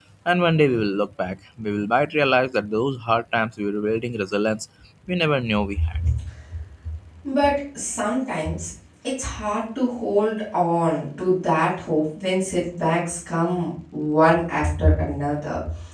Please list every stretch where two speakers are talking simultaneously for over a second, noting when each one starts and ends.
none

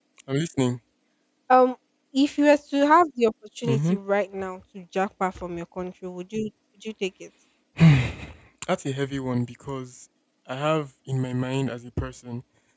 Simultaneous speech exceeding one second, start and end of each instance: none

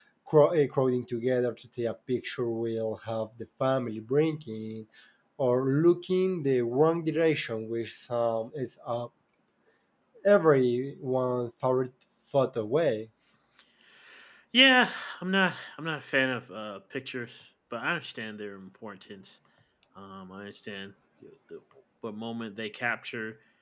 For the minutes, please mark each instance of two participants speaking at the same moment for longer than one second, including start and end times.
none

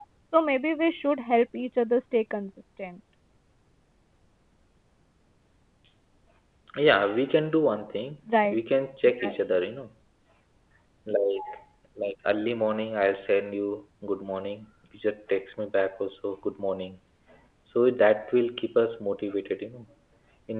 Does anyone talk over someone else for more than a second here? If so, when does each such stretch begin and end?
none

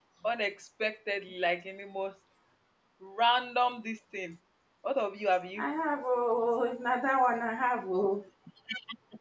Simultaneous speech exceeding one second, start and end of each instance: none

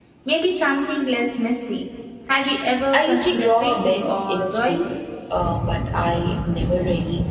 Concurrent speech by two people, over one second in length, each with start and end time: 2.9-4.9

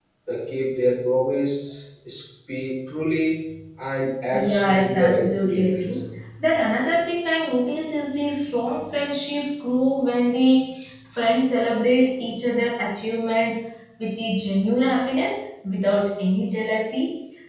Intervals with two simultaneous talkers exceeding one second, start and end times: 4.3-5.9

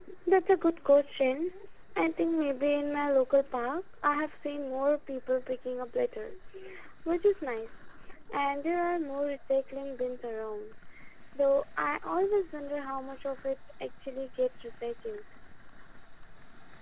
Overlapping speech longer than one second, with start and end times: none

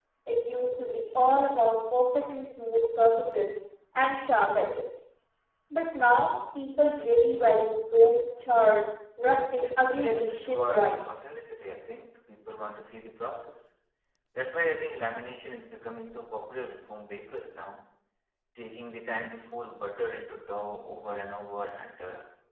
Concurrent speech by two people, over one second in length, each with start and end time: 9.6-11.0

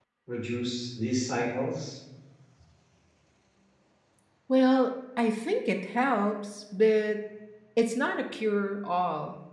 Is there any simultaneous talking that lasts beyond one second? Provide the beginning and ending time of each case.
none

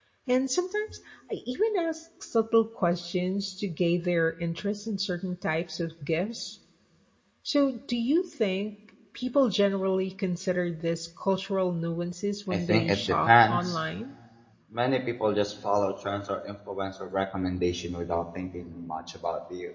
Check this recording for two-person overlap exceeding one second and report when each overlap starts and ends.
12.5-13.8

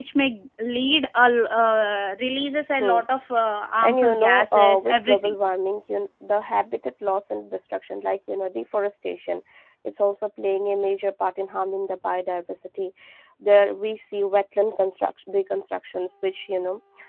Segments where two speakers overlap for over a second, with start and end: 3.8-5.3

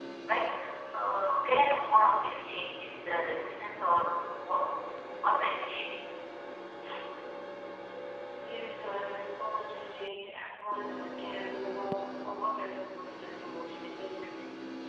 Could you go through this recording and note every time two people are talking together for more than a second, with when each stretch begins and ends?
none

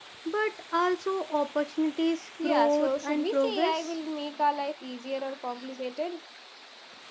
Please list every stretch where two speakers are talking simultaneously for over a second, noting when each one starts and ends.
2.4-3.9

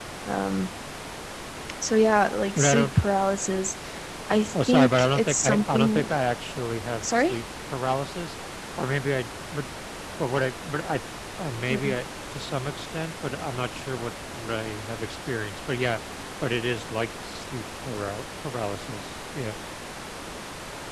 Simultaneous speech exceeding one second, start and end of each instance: 4.7-6.2

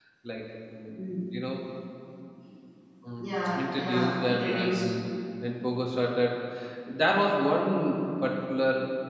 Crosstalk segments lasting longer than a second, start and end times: 3.2-4.9

